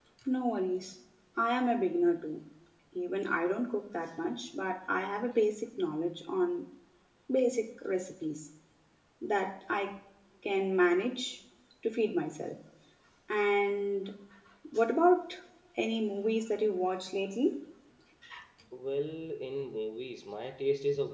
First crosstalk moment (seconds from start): none

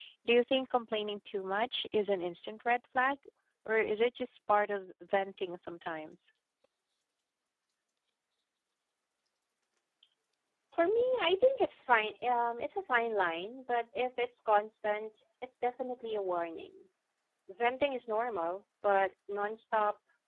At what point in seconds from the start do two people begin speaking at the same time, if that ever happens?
none

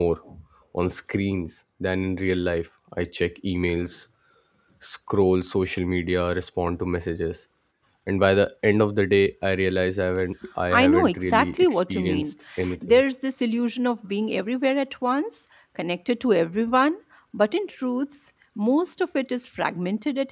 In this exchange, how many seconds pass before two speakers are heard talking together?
10.7 s

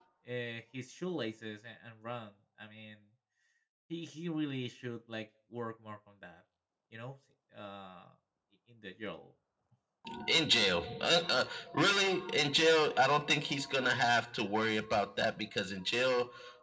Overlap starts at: none

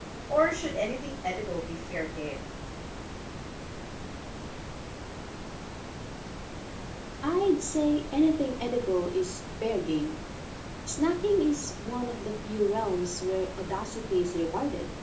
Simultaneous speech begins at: none

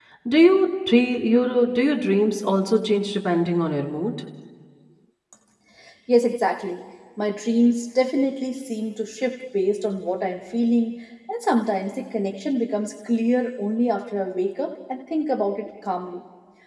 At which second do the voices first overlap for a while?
none

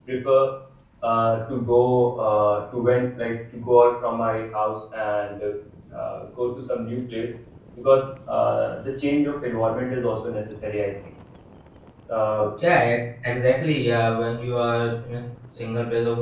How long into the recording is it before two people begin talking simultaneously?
none

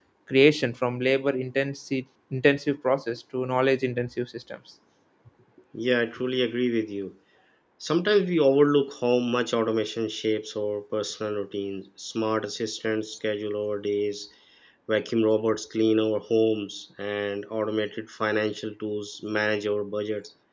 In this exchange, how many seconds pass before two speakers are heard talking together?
none

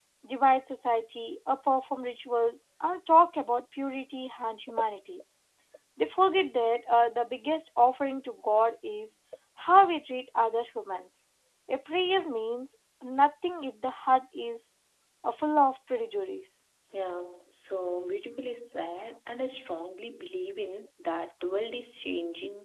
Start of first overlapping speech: none

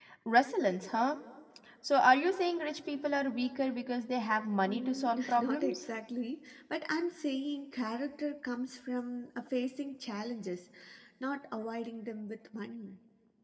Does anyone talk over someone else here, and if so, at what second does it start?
4.6 s

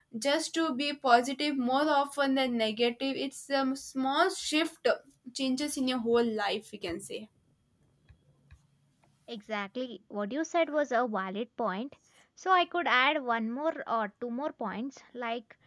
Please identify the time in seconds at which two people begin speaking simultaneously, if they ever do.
none

